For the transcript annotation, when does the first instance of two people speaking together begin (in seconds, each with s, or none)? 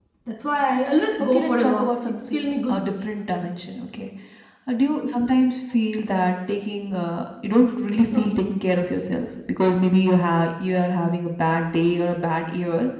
1.2 s